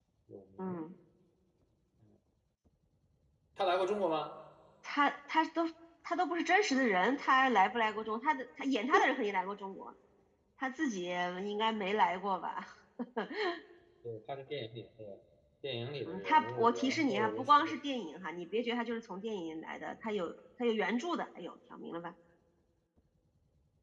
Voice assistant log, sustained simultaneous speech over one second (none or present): present